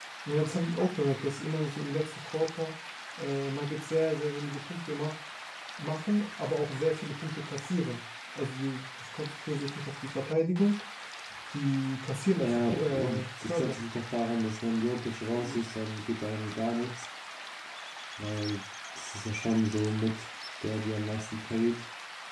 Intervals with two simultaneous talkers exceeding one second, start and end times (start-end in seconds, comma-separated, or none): 12.4-13.8